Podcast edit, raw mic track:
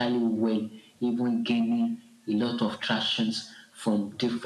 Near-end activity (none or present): none